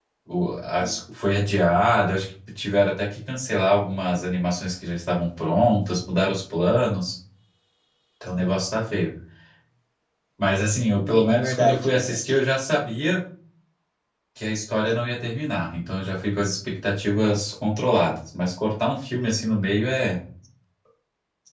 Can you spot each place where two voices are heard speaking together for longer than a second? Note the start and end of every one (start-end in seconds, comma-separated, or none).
10.9-12.2